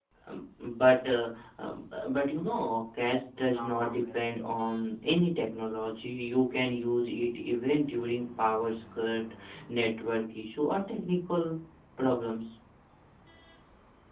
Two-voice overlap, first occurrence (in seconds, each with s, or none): 2.3 s